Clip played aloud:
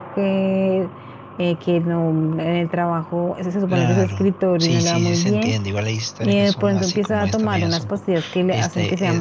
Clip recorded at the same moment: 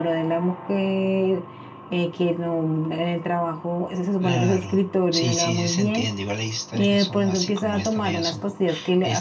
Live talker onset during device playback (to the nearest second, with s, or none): none